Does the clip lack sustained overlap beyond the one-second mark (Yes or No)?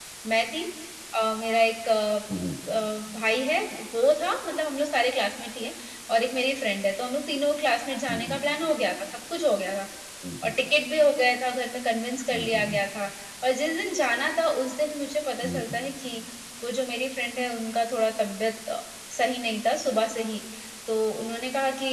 Yes